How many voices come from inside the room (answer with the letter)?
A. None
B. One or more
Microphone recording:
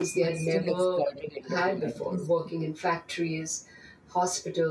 B